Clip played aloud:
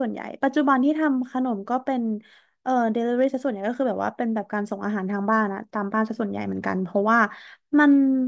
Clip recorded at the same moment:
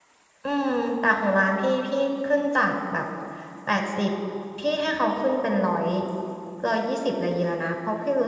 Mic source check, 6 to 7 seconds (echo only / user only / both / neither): user only